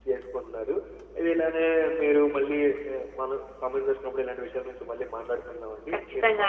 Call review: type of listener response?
listening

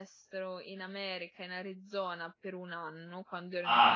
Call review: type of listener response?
taking over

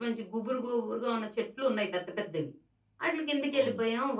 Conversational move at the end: listening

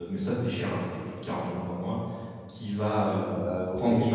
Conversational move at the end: listening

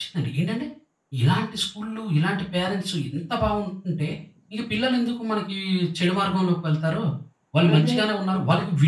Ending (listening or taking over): listening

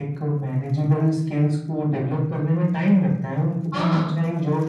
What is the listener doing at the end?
listening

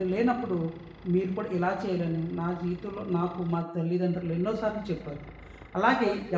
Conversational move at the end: taking over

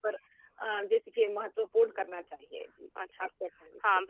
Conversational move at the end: taking over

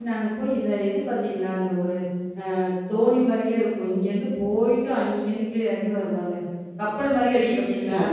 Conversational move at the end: taking over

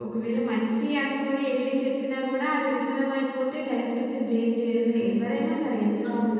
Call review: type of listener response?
taking over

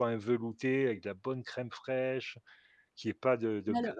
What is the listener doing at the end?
listening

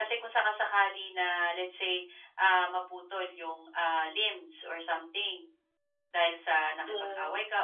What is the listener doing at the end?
listening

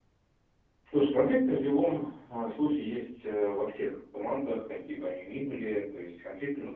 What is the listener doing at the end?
listening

